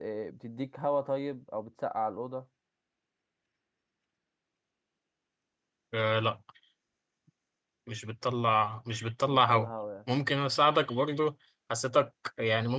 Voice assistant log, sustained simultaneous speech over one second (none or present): none